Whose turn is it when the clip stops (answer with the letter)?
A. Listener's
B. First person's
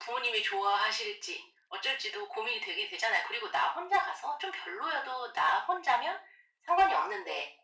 B